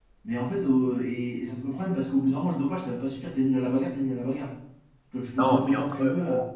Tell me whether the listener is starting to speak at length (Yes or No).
Yes